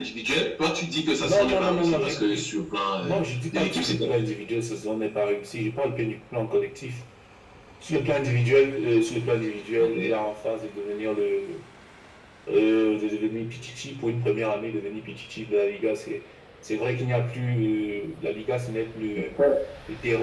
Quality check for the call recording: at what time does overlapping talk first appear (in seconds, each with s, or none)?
1.2 s